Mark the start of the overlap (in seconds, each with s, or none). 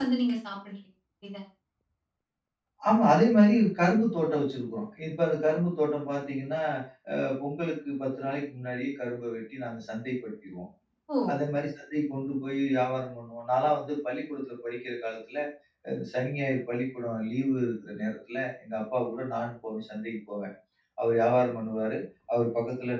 none